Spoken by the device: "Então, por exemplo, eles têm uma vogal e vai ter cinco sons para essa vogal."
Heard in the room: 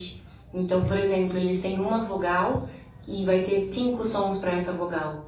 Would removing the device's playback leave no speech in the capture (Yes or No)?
Yes